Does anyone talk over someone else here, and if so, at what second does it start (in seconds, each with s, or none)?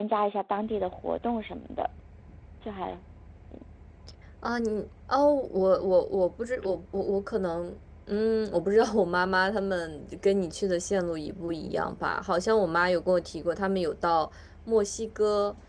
none